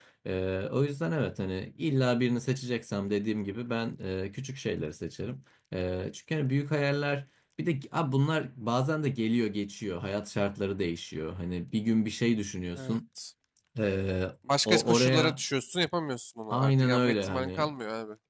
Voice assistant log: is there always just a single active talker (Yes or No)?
No